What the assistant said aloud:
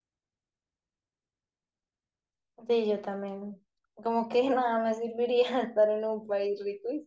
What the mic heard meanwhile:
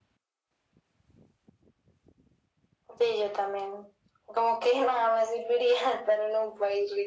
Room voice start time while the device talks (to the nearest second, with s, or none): none